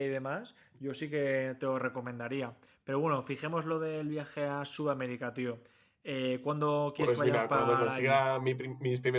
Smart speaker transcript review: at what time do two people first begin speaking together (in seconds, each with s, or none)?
7.0 s